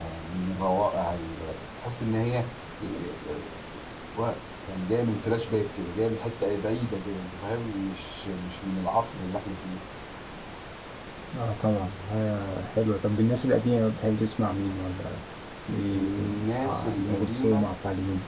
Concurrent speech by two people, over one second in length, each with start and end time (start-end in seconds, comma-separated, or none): 15.9-17.7